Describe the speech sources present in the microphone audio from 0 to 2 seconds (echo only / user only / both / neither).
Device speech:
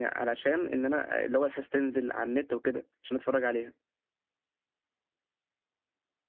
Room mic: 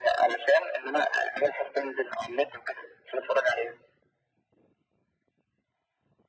echo only